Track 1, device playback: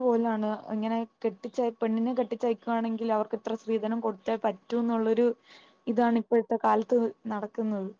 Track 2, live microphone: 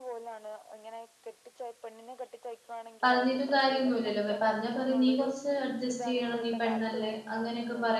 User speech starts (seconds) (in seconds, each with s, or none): 3.0 s